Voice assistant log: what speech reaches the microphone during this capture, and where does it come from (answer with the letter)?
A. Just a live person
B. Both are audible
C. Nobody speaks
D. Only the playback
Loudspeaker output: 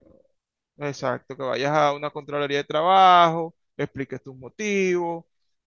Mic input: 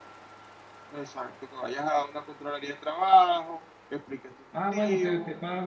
B